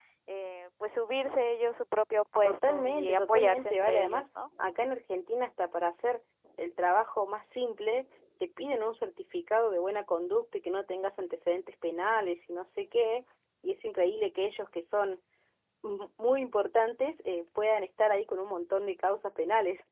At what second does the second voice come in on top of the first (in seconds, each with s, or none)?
2.4 s